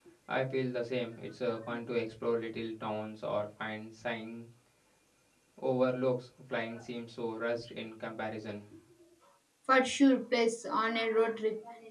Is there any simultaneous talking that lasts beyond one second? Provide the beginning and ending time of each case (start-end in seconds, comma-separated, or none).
none